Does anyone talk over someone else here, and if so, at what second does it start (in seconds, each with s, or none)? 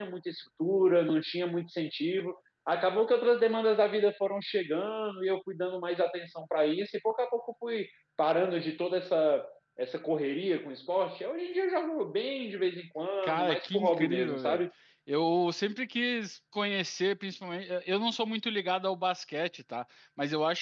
13.2 s